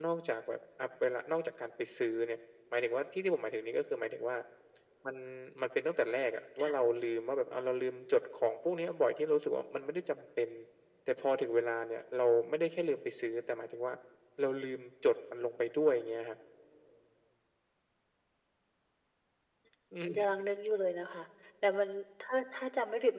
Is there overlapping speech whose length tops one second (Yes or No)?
No